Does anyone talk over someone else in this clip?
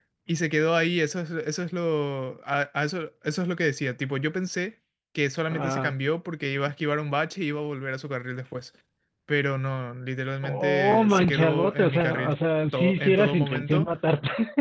Yes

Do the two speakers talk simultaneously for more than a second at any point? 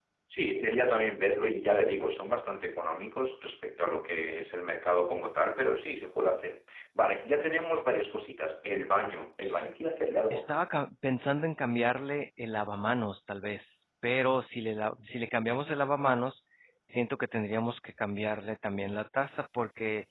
No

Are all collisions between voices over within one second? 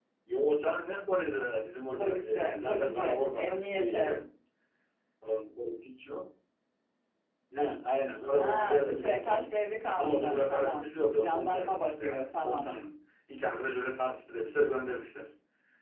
No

